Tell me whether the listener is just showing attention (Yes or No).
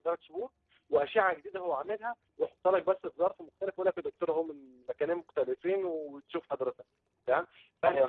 Yes